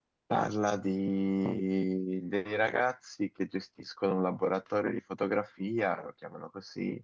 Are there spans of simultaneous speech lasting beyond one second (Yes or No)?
No